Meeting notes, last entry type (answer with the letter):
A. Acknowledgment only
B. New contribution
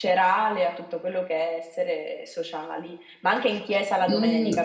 B